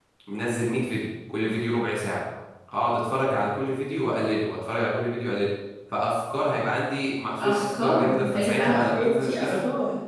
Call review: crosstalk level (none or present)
present